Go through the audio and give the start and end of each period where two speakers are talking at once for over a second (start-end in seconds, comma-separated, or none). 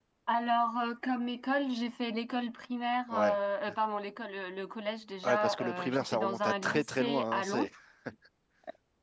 5.2-7.7